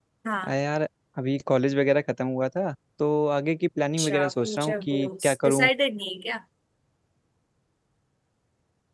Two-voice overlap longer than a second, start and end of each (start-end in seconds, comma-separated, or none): 4.0-5.7